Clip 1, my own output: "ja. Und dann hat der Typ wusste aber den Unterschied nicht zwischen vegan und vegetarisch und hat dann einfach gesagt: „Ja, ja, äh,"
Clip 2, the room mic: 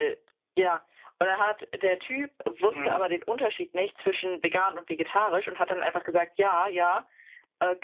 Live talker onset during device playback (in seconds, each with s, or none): 2.6 s